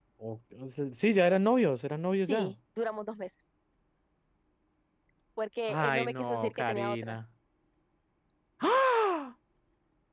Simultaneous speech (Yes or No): Yes